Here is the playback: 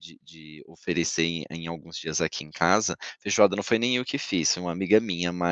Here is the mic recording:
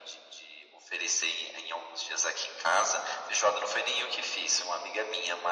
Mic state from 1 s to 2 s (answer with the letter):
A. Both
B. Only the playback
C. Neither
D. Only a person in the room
B